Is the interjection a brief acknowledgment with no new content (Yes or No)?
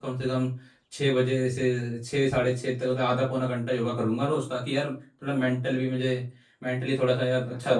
No